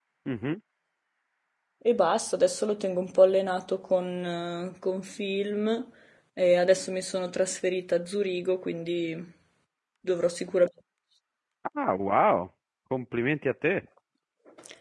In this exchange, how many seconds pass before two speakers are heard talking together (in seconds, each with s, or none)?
none